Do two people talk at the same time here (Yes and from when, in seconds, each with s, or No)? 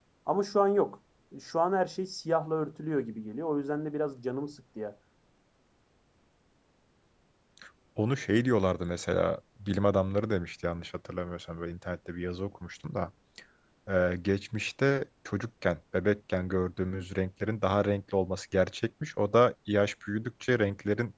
No